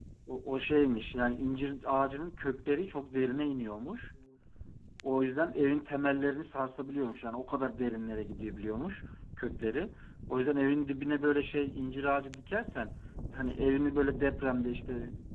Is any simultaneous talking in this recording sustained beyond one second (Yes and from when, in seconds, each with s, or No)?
No